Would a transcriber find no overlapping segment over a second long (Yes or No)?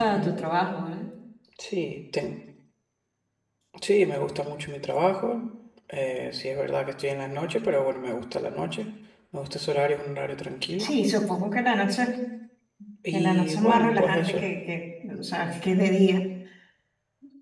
No